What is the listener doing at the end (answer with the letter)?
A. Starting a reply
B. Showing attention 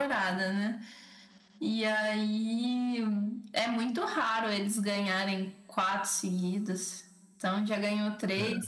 B